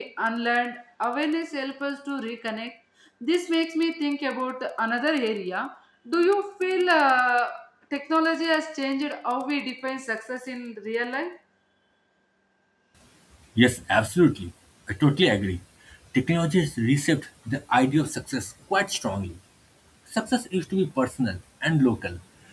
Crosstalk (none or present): none